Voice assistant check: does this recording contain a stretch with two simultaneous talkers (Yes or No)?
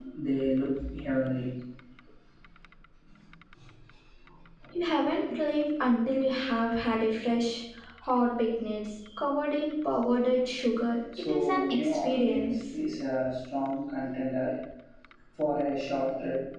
Yes